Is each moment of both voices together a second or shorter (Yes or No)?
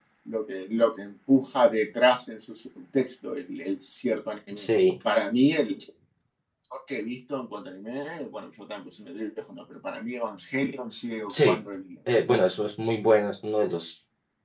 Yes